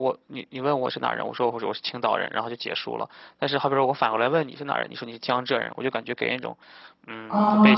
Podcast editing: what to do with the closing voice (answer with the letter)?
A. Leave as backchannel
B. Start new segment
B